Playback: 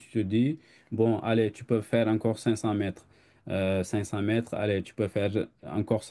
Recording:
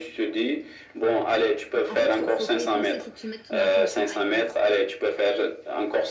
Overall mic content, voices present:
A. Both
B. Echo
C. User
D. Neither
A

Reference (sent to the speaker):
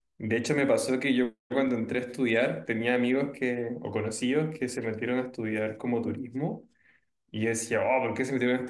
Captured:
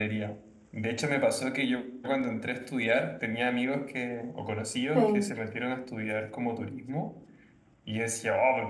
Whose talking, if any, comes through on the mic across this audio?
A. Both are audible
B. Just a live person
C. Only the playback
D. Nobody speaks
A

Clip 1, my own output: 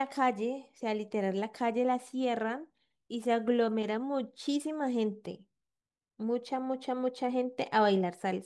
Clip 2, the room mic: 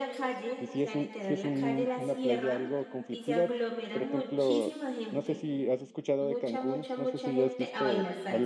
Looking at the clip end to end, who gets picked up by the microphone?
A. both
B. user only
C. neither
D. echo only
A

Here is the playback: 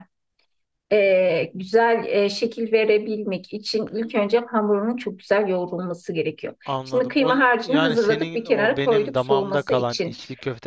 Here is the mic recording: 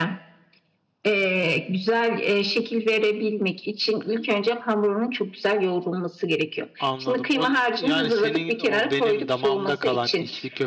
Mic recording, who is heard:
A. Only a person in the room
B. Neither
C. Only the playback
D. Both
C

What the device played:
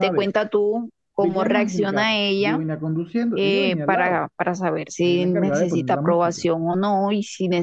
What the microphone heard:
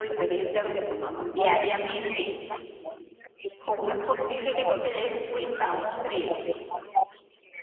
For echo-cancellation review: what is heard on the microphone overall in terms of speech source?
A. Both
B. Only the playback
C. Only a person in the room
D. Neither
A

